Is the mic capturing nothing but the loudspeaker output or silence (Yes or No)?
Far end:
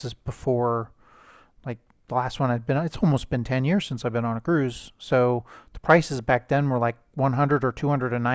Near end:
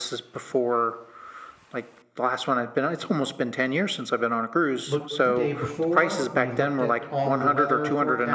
No